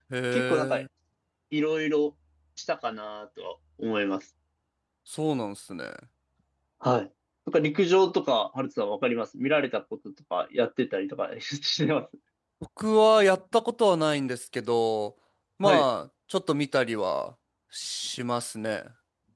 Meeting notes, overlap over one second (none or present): none